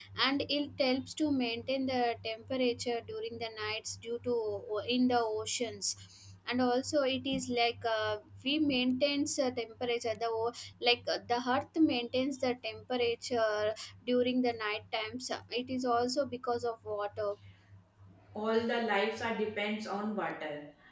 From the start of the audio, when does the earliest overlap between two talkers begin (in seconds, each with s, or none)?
none